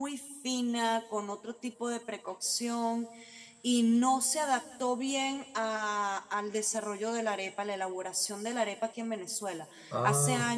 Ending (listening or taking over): listening